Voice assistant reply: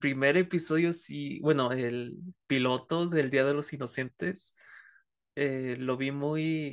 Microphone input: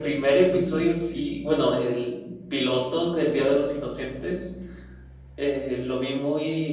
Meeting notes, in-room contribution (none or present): present